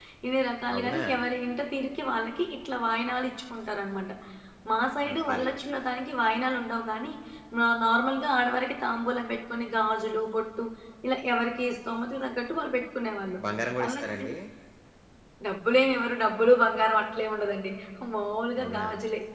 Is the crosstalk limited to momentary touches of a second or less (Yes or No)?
Yes